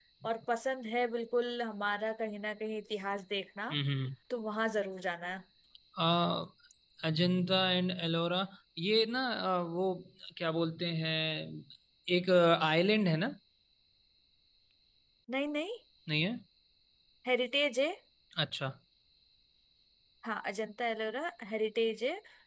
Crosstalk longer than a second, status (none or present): none